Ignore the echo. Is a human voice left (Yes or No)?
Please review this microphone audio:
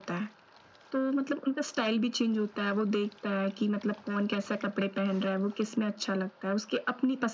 No